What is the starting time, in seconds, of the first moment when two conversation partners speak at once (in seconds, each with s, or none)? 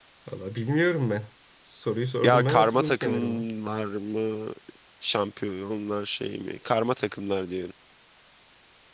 2.2 s